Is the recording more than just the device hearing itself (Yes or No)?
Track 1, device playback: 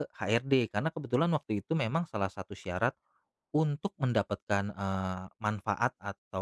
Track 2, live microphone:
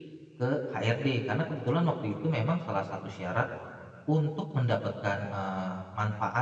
No